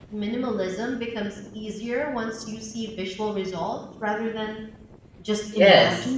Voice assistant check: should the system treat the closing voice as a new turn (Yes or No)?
Yes